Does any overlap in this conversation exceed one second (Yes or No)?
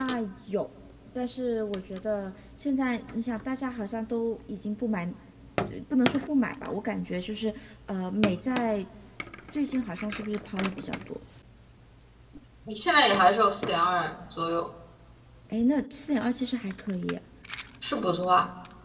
No